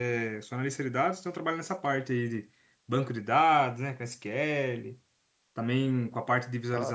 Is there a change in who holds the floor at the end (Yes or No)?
No